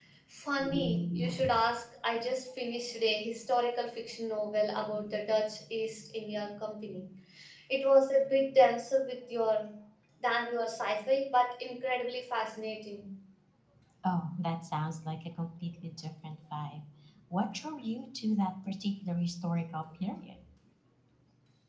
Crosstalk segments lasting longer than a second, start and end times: none

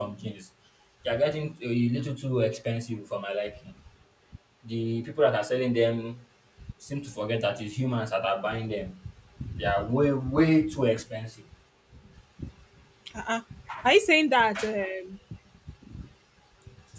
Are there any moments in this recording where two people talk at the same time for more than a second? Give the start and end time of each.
none

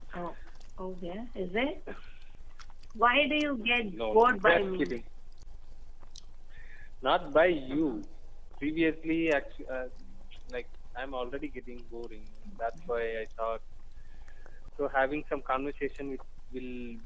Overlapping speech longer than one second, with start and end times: 3.6-5.0

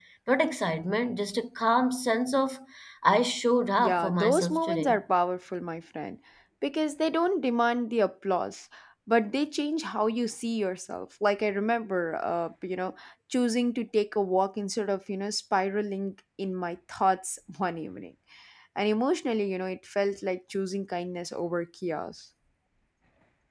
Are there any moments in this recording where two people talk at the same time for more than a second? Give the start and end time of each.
3.8-5.0

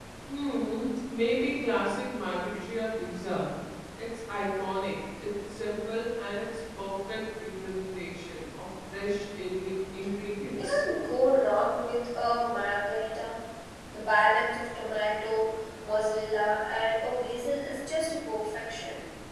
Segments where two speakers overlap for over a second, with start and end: none

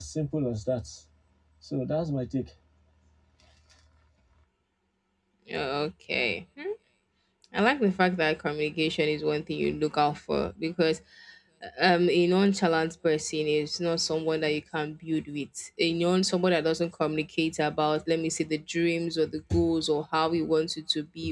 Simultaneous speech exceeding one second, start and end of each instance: none

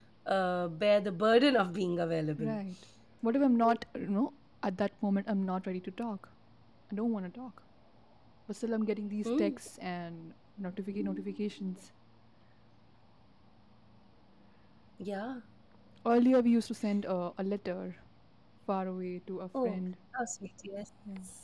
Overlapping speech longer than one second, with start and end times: none

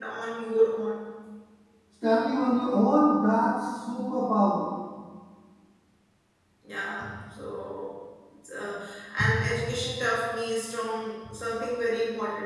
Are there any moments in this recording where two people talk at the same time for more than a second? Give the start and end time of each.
none

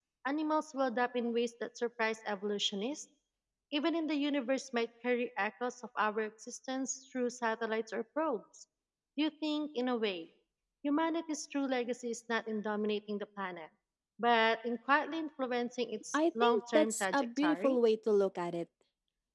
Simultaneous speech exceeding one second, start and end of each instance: 16.1-17.8

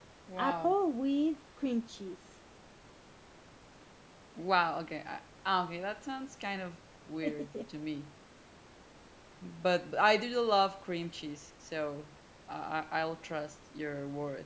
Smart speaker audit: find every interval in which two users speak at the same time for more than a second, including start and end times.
none

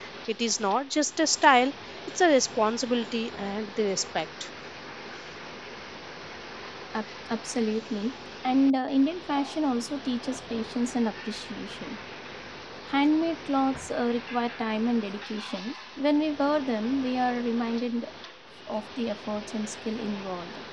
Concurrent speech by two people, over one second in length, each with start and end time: none

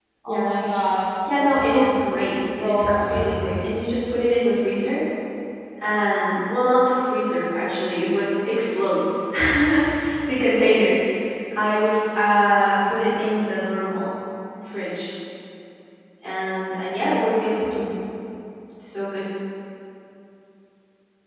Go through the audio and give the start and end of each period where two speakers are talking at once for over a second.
1.4-3.5

